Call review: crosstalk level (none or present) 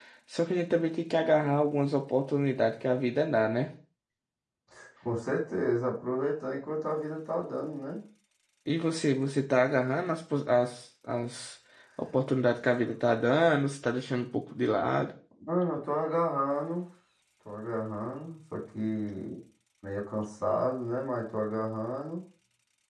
none